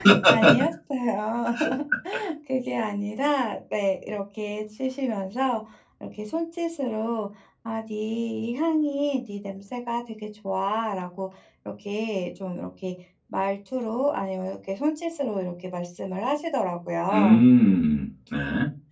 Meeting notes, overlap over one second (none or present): none